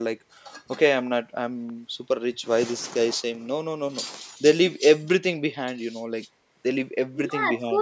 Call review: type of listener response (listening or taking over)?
taking over